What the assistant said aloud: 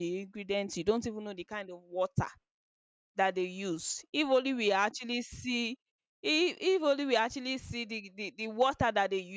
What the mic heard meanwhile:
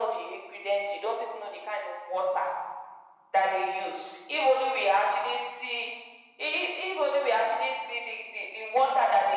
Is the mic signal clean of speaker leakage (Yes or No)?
No